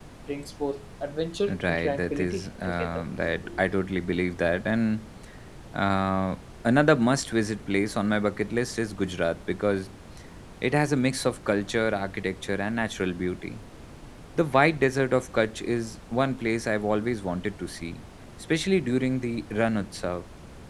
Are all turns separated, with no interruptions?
No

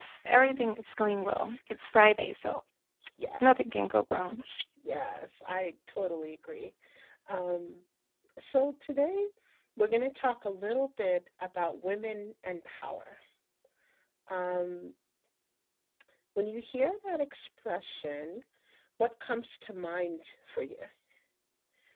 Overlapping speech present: No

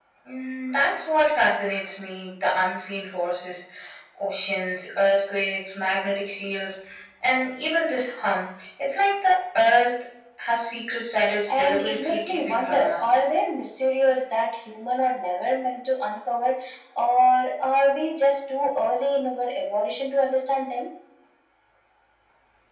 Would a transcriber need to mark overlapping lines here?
Yes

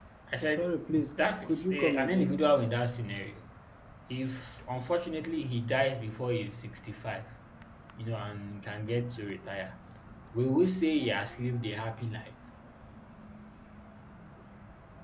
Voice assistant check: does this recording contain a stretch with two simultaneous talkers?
Yes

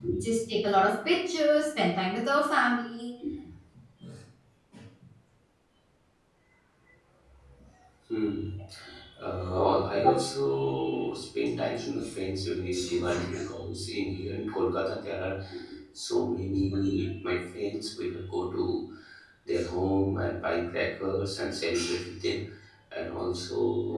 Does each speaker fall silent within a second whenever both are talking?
Yes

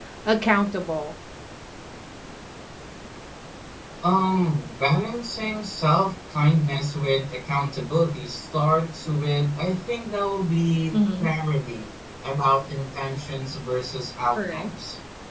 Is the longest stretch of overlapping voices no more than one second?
Yes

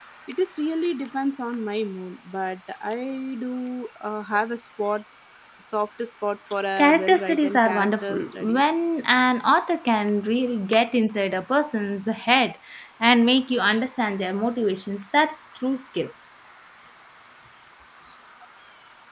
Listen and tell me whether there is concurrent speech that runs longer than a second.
Yes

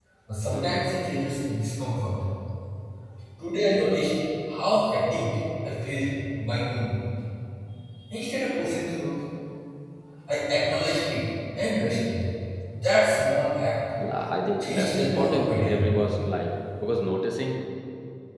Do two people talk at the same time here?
Yes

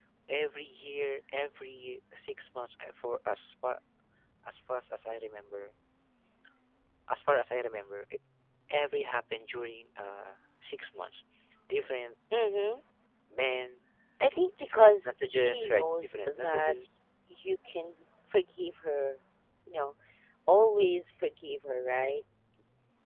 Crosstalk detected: Yes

